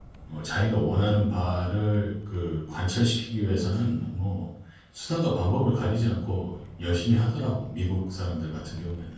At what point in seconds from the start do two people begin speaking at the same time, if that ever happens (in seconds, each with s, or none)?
none